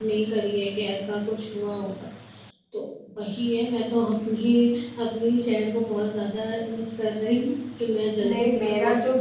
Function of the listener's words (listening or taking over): taking over